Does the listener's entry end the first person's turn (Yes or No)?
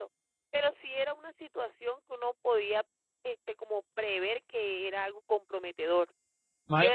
Yes